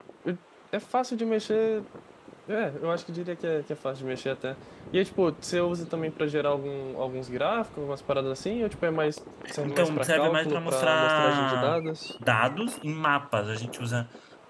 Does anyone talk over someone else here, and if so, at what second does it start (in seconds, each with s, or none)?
9.4 s